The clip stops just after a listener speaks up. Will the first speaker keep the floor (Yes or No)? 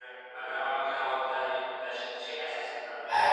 No